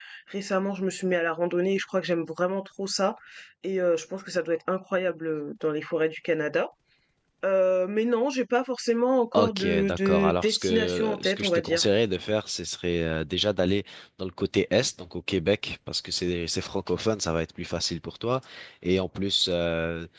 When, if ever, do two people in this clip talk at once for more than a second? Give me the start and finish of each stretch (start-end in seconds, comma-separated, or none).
9.3-11.8